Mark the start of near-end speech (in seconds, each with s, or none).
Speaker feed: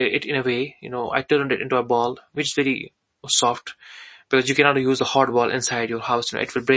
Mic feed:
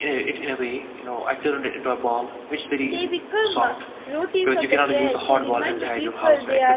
2.8 s